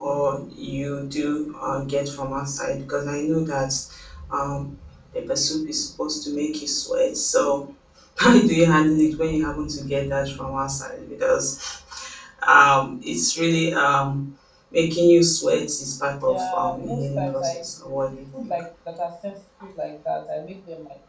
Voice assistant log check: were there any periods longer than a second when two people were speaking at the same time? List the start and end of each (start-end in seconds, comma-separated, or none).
16.3-17.6